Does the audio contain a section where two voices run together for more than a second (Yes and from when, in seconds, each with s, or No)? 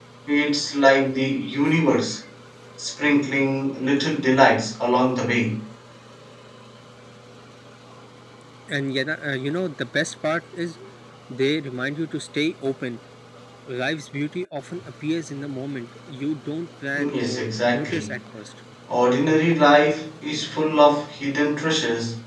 Yes, from 16.9 s